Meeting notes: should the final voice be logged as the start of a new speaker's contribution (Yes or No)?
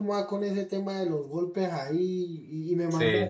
No